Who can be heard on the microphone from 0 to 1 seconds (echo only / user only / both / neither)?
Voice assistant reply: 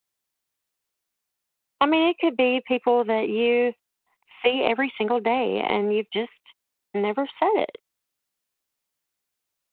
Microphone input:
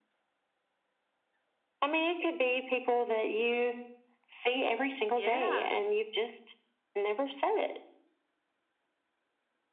neither